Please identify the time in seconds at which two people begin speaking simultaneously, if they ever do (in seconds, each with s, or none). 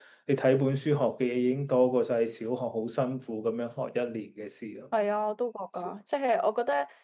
none